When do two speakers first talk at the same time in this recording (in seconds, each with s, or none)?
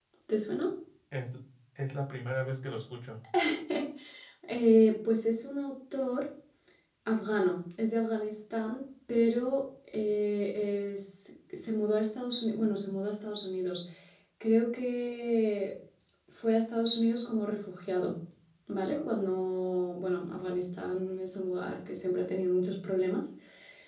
none